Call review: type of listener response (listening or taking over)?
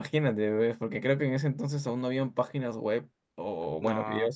listening